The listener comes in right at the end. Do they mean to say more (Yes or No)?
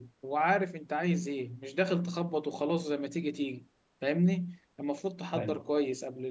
No